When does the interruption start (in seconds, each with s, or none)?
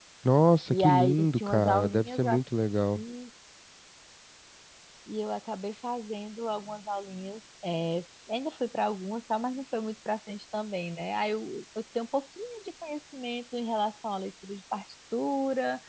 0.7 s